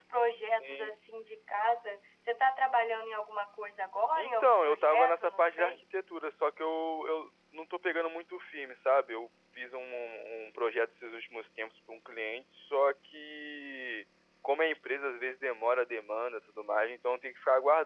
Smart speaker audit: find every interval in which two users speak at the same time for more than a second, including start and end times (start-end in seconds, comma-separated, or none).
4.2-5.7